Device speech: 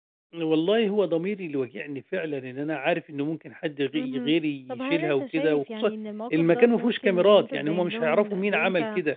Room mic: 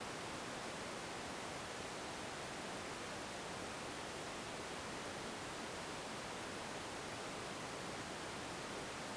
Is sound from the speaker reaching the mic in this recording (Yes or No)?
No